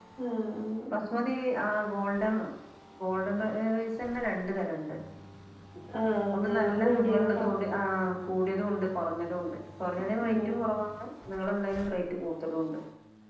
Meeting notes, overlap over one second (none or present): present